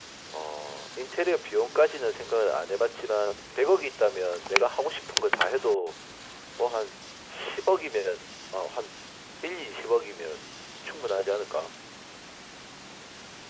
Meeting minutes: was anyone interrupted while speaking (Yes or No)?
No